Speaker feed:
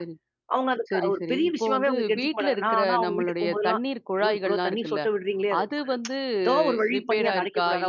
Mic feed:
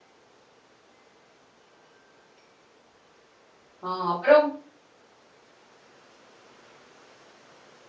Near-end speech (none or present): present